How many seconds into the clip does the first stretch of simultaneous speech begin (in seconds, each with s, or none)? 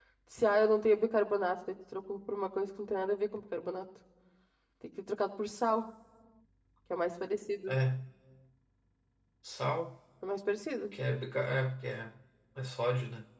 none